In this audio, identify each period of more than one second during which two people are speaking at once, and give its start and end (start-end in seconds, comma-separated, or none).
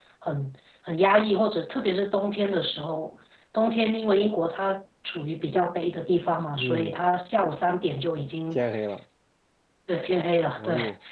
none